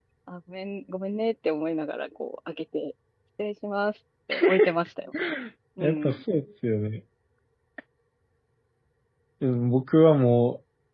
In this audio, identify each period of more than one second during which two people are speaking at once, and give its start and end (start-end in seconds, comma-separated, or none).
none